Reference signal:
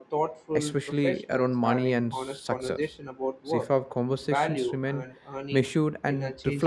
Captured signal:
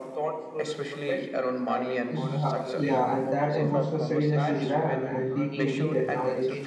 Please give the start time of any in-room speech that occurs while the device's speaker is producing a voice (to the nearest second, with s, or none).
2 s